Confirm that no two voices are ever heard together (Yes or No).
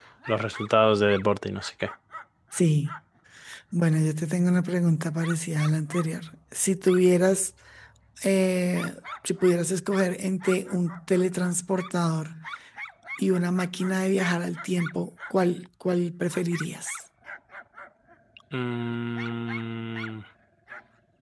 Yes